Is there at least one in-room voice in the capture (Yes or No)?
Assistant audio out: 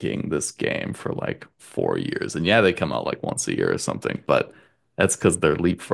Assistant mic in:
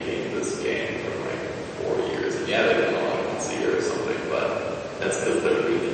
No